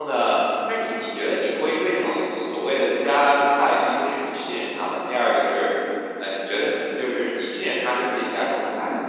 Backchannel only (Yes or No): Yes